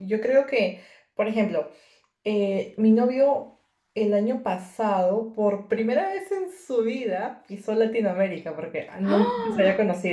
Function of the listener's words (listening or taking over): listening